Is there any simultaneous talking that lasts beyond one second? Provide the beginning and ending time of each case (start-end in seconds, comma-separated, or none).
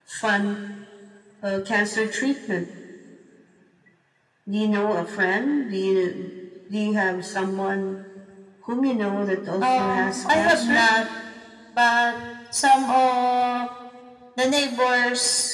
9.6-10.8